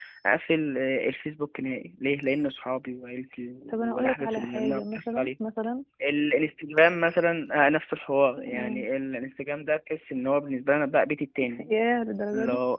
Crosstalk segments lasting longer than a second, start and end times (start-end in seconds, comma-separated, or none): 3.7-5.3